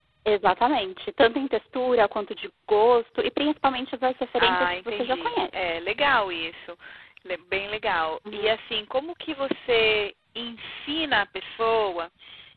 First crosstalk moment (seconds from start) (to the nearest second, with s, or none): 4 s